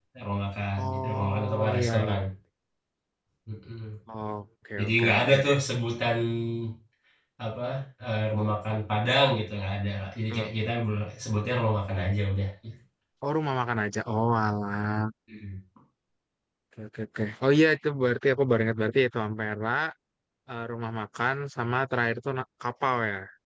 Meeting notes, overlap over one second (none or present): present